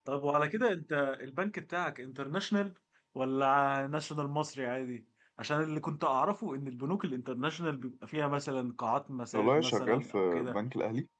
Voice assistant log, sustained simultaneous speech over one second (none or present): present